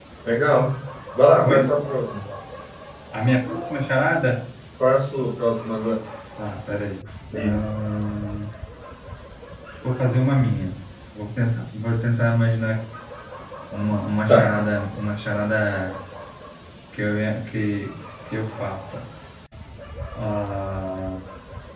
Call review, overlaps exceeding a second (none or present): none